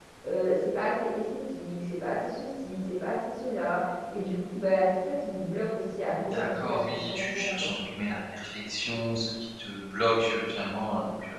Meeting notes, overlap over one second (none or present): present